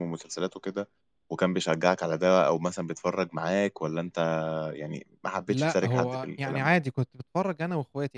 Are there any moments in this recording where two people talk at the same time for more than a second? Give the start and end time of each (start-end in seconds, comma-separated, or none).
5.5-6.8